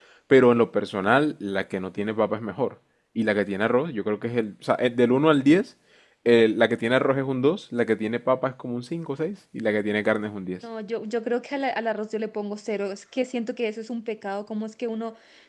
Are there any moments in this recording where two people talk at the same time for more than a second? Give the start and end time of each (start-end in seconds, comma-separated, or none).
none